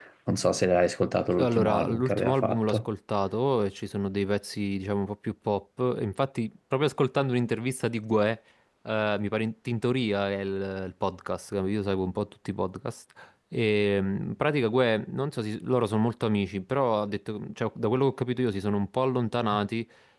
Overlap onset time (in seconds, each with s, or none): 1.4 s